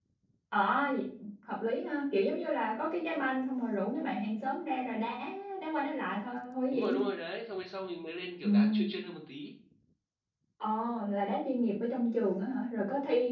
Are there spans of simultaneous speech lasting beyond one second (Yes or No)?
No